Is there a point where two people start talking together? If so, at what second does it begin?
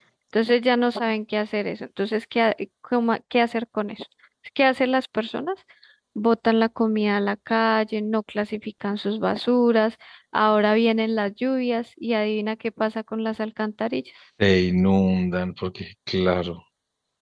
none

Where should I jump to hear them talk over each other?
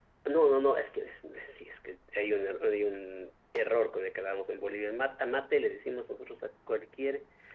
none

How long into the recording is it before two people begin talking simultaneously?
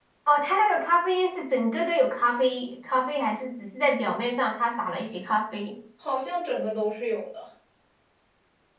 none

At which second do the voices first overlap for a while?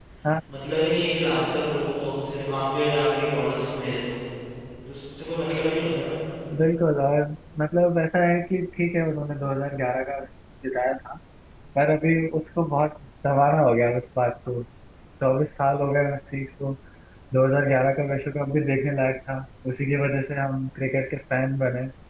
none

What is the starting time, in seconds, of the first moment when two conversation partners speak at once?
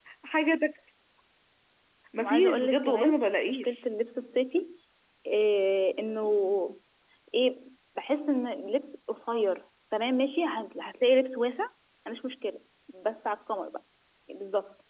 2.2 s

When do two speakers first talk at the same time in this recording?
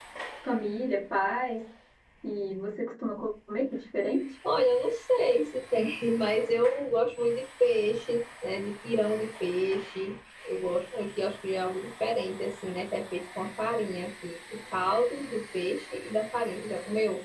none

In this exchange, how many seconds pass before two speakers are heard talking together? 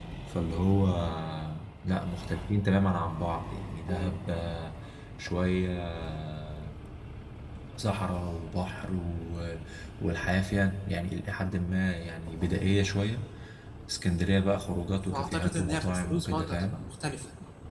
15.0 s

